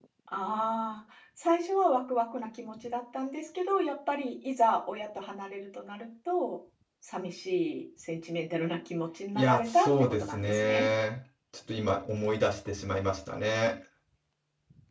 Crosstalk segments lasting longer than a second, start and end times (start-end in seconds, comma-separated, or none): 9.3-10.9